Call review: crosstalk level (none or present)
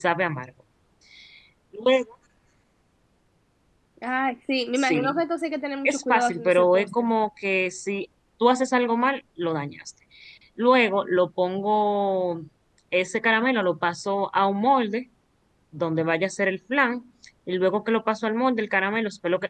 present